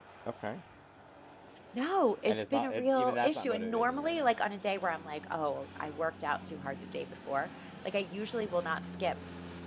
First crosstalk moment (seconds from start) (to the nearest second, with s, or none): 2 s